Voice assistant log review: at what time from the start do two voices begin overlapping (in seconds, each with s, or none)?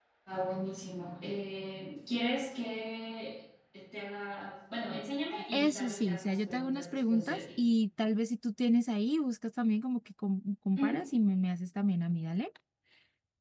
5.5 s